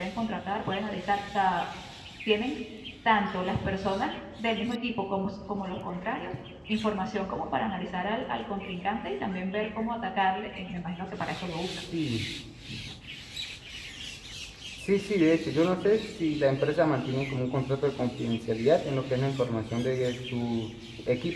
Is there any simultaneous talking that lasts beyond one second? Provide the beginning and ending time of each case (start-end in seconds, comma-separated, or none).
none